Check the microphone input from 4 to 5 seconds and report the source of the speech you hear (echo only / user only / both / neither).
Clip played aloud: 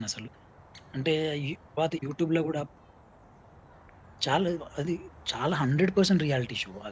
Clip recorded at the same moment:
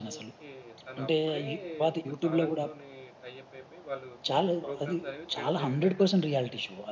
both